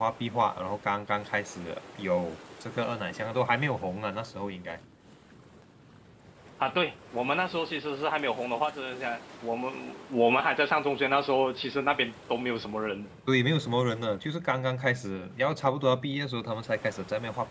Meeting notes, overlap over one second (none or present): none